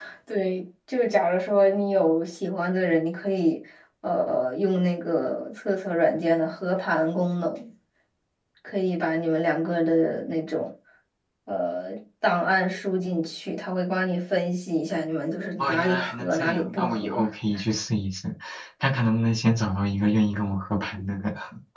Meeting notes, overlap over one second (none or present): present